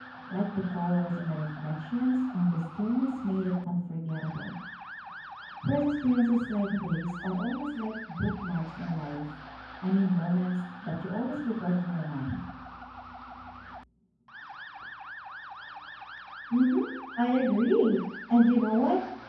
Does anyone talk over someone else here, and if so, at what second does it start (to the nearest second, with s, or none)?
none